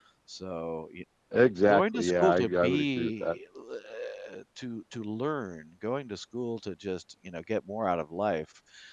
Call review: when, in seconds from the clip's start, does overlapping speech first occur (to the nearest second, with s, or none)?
2 s